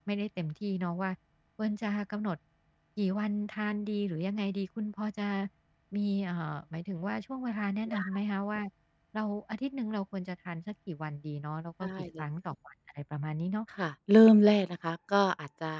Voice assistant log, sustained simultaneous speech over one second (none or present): none